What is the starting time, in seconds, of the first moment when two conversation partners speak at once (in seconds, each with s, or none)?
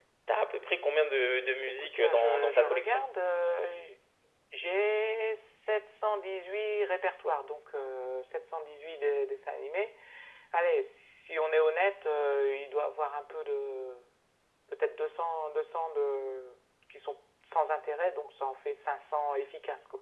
1.8 s